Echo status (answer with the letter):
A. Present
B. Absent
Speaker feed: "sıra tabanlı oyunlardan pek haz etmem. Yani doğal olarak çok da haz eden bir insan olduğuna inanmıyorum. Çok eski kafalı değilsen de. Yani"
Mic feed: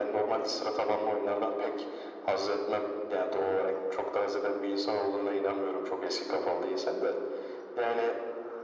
A